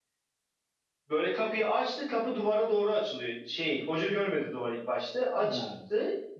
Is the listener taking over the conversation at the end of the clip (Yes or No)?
No